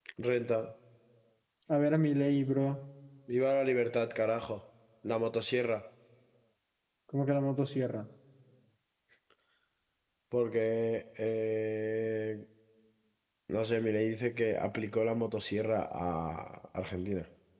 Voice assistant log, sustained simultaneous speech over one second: none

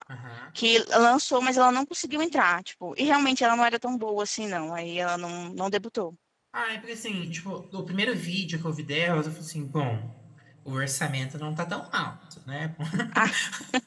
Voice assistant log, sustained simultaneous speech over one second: none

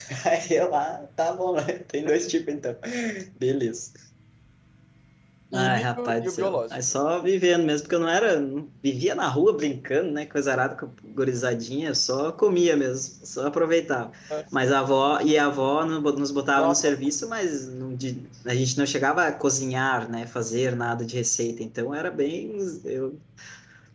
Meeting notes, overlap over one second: present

